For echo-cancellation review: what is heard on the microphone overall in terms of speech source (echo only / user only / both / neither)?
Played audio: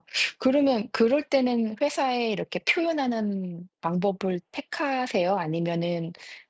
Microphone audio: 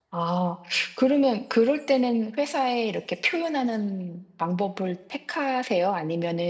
echo only